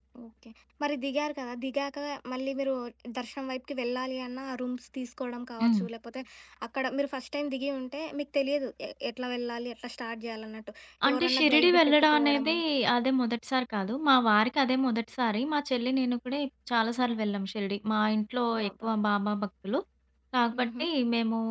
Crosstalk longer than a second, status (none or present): present